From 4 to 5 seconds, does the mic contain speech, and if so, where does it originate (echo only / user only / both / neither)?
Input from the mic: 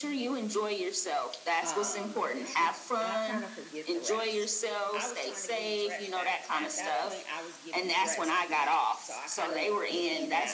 both